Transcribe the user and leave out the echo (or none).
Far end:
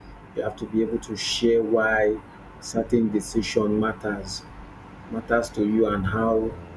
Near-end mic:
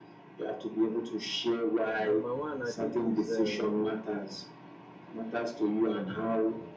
number one, I think is um,